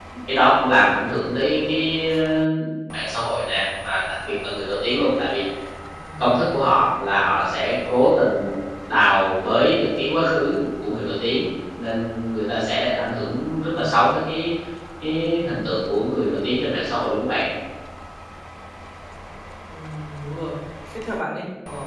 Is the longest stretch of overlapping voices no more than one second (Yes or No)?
Yes